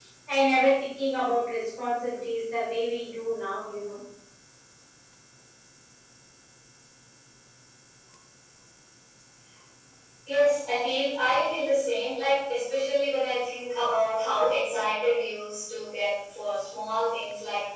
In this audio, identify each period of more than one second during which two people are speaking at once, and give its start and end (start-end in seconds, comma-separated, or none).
none